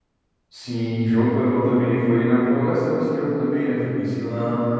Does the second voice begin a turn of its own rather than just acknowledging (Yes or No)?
Yes